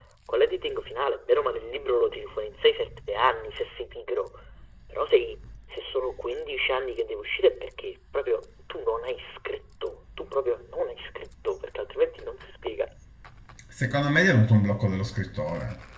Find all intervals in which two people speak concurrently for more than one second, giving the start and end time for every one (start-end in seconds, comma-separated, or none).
none